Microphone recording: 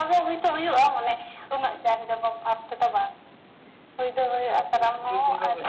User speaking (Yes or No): Yes